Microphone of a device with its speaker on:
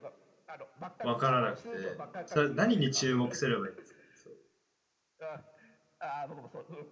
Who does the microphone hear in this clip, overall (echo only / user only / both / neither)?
both